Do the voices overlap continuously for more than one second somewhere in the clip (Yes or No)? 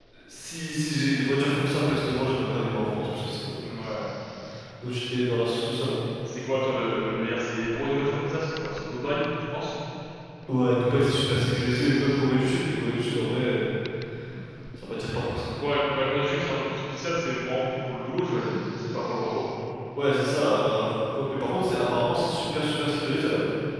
No